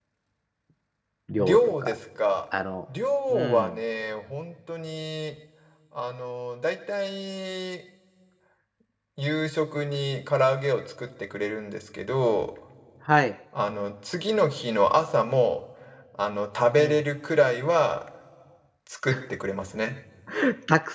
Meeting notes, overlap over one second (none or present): none